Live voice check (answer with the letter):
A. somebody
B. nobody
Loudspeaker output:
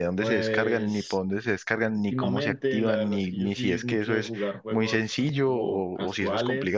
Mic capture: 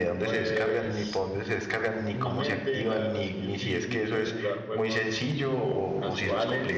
B